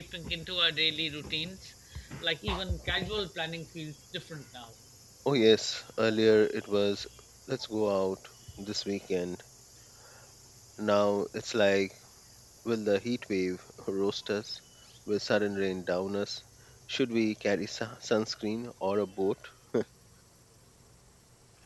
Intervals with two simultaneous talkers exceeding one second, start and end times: none

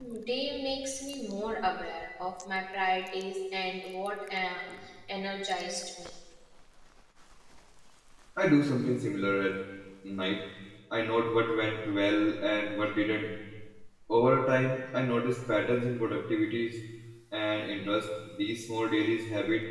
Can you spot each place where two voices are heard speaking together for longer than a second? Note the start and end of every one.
none

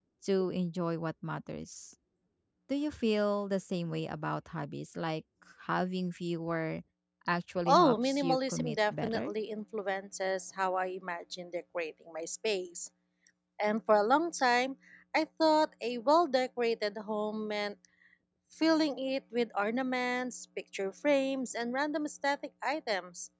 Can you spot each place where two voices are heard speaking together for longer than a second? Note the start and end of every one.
7.7-9.3

